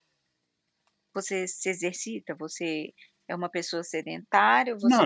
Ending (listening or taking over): taking over